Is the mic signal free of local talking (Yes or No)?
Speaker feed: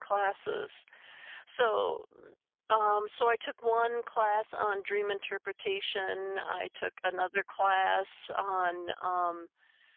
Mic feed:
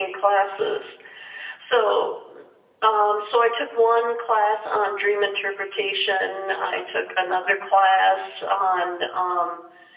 Yes